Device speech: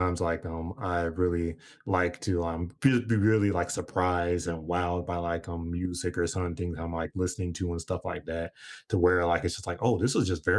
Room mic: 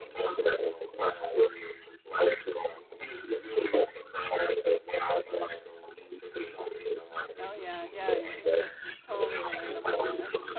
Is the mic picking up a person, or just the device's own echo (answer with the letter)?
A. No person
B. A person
B